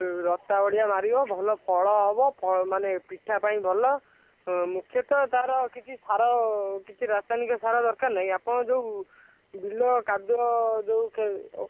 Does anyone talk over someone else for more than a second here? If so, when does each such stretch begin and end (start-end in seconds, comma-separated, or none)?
none